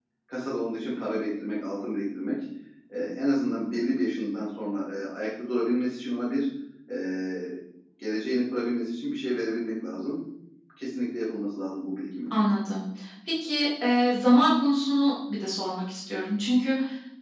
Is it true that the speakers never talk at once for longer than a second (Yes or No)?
Yes